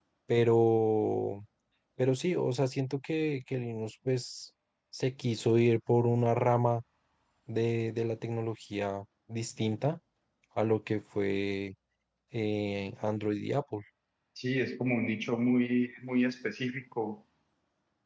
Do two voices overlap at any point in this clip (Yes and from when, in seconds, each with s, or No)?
No